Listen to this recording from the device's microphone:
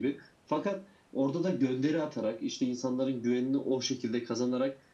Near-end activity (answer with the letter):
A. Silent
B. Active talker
A